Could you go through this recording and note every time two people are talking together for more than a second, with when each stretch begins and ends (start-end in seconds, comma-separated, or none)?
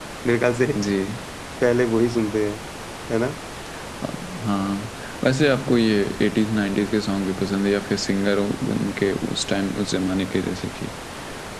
none